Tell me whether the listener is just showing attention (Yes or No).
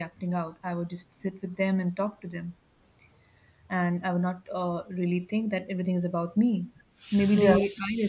Yes